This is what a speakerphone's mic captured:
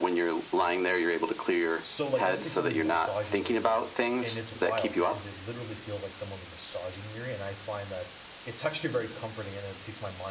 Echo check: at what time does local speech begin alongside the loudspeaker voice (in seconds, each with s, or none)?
1.8 s